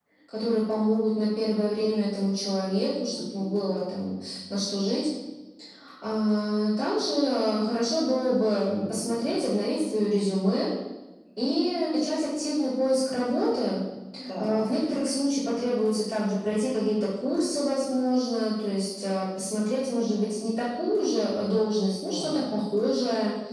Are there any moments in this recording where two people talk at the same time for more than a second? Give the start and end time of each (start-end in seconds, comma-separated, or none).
none